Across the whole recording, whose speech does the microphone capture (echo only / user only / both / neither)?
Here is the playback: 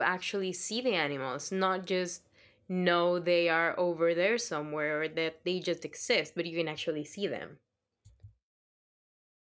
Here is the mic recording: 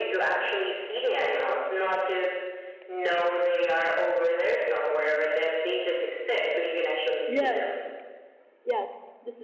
both